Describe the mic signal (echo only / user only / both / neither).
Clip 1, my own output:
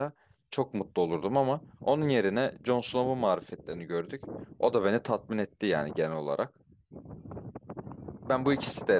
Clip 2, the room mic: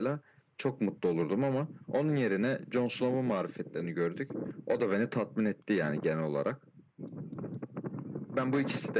echo only